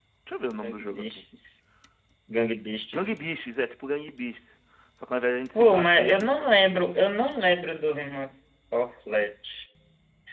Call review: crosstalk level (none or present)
present